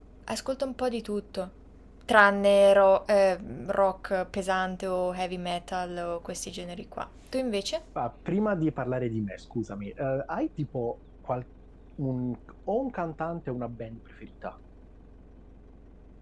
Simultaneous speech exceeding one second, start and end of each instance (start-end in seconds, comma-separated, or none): none